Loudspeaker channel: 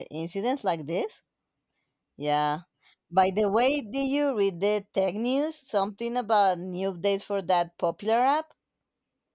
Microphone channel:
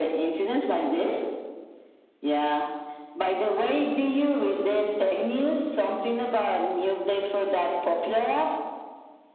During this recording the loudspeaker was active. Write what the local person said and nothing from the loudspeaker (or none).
none